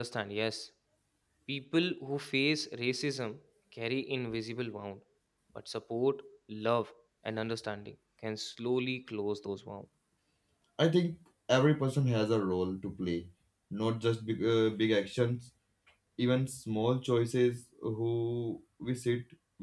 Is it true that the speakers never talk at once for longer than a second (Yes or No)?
Yes